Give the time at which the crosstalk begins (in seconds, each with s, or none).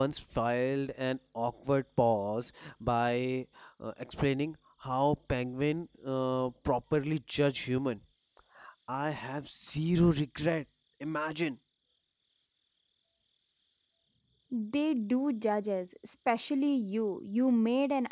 none